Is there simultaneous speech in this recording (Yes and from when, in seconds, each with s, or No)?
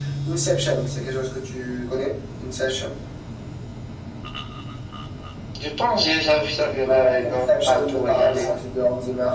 Yes, from 6.6 s